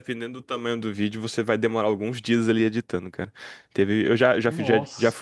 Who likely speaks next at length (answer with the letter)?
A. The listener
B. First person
B